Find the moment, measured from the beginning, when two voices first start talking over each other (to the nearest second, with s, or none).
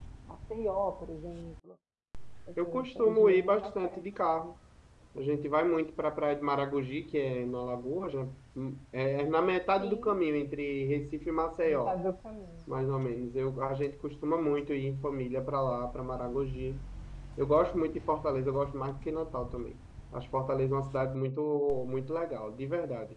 3 s